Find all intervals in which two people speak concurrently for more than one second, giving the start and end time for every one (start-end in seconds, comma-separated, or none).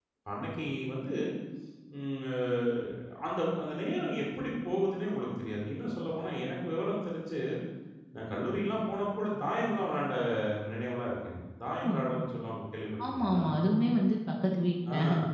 none